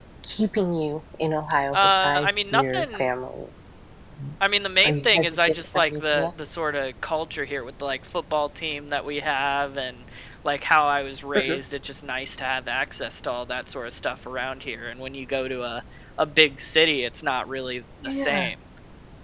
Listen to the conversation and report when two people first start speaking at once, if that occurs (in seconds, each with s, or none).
1.7 s